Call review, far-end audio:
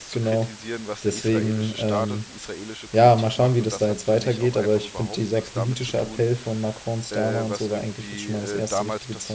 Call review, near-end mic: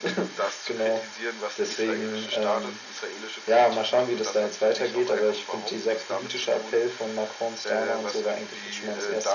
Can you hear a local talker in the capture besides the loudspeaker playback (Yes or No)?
No